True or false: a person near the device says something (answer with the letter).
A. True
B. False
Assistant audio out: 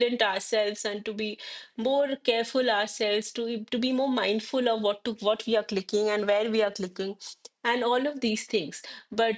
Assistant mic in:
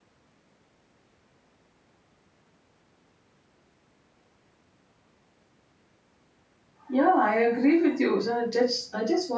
A